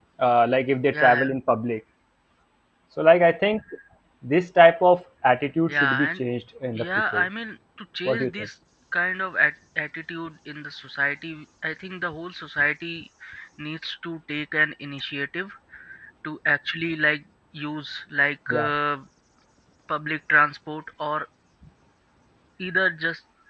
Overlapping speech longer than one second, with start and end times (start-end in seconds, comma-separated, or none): none